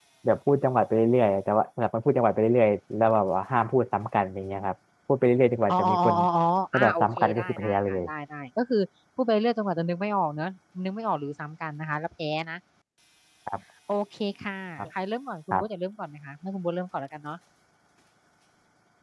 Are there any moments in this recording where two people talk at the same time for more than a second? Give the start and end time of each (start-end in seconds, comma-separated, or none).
6.7-8.0